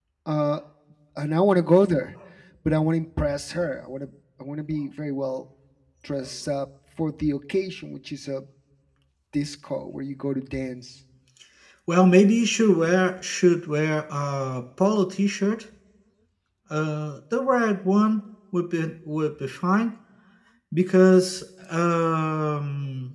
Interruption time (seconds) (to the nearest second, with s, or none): none